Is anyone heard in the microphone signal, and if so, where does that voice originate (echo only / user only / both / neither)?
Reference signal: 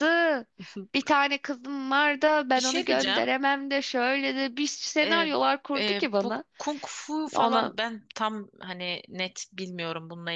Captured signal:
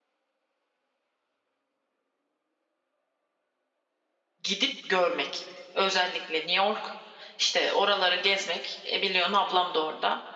user only